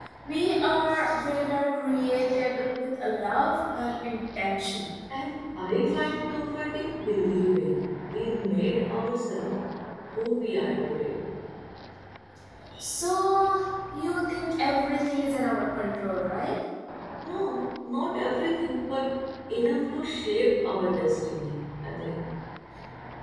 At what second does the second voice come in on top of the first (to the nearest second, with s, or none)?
none